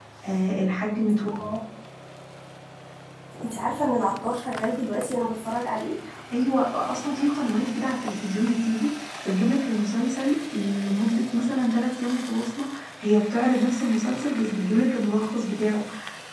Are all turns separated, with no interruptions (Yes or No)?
Yes